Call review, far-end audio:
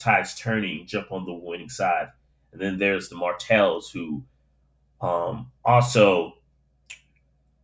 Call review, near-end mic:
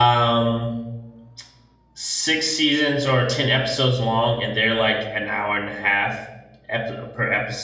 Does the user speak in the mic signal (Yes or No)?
Yes